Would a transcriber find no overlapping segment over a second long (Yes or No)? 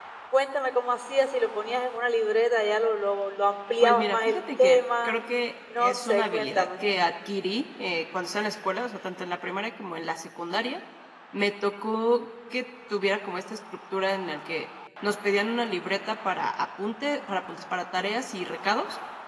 No